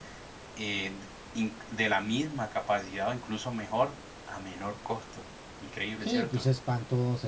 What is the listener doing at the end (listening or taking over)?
taking over